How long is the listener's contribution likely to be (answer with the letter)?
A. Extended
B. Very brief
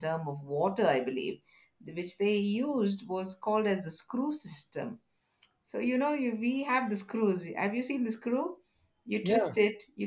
B